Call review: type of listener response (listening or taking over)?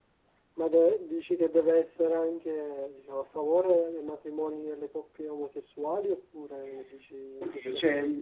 taking over